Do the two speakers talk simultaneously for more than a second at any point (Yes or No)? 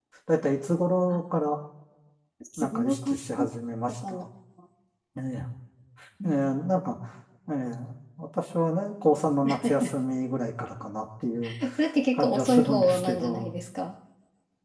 Yes